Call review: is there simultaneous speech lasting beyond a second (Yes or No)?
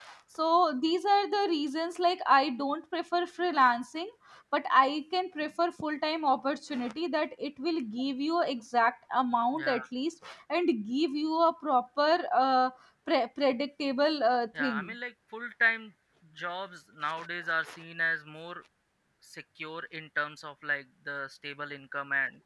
No